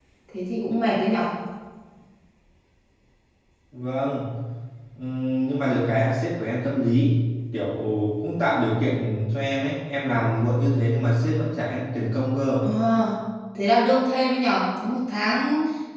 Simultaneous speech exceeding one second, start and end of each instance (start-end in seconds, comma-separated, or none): none